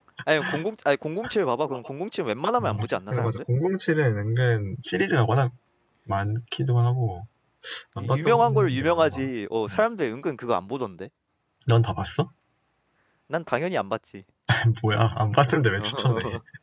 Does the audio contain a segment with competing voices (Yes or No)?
Yes